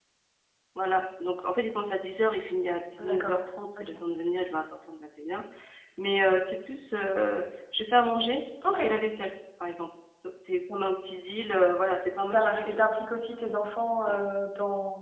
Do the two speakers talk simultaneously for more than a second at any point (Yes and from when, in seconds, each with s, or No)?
No